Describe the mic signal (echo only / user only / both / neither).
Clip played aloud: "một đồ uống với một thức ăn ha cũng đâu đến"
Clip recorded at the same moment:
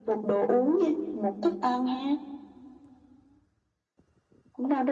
echo only